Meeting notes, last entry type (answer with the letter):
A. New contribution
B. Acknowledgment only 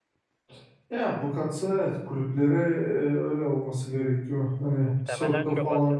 A